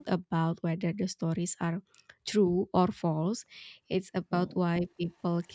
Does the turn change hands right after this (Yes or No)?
No